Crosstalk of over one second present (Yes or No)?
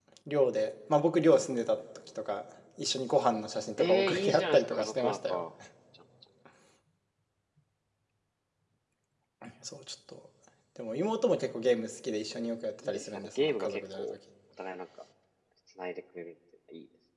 Yes